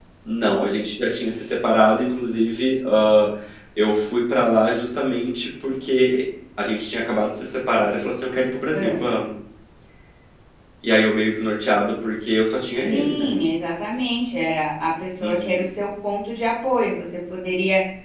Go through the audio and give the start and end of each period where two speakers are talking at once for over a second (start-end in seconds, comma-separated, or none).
none